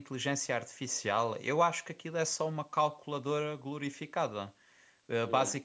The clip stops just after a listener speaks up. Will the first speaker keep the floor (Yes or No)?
Yes